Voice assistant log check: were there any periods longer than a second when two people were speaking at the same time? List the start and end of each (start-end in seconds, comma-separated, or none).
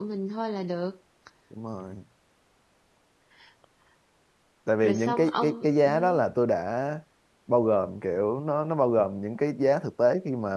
4.8-6.2